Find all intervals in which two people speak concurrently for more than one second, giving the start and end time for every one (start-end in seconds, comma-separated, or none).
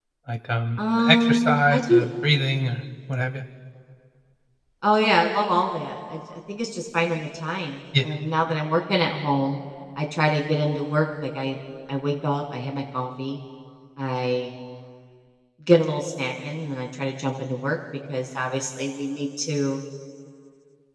0.8-2.0